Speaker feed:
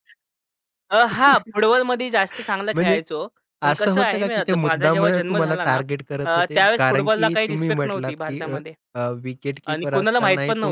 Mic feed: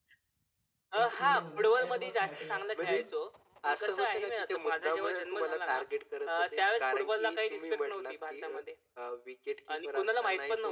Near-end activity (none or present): present